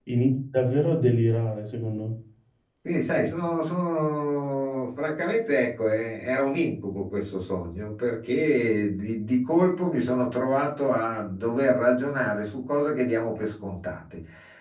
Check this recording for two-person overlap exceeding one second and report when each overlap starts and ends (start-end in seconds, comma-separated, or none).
none